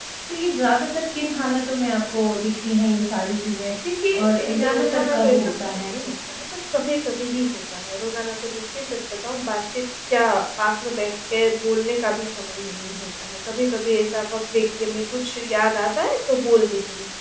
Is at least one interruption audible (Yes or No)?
Yes